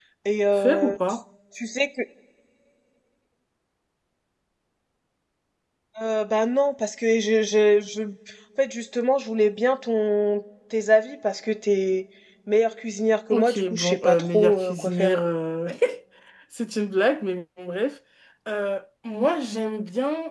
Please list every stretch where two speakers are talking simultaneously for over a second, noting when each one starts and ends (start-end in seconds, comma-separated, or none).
13.3-15.2